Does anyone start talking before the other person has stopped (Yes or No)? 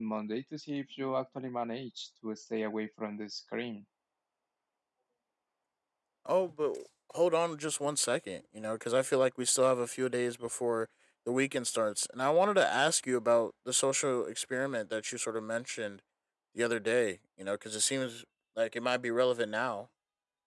No